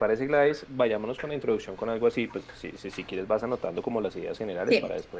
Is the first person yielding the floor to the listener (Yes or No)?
Yes